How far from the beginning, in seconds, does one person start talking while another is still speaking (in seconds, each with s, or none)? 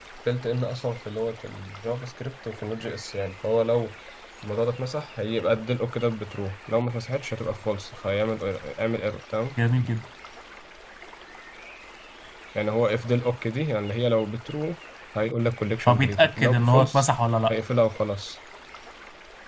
15.9 s